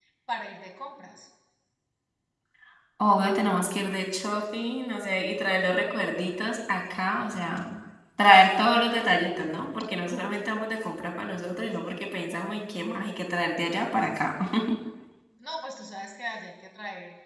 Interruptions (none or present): none